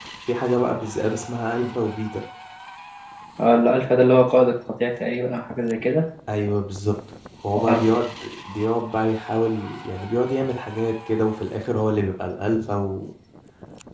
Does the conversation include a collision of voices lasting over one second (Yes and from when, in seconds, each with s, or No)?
No